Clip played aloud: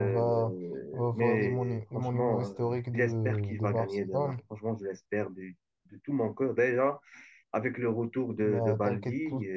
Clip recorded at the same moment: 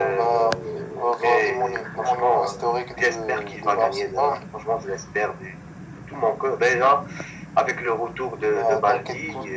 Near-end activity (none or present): none